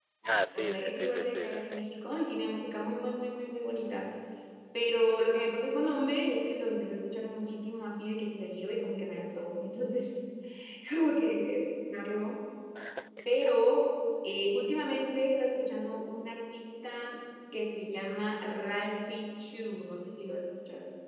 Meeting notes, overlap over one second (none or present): present